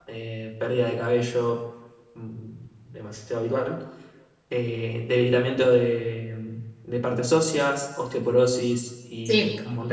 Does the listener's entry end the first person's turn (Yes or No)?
Yes